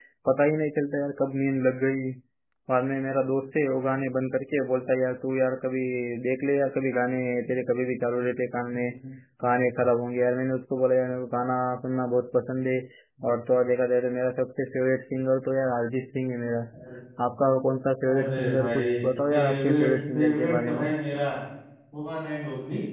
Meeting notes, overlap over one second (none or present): present